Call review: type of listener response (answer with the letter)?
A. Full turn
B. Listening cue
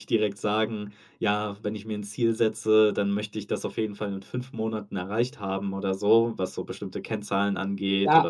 A